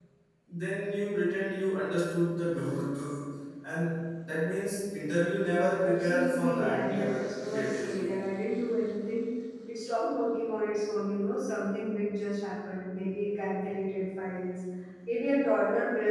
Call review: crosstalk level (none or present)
present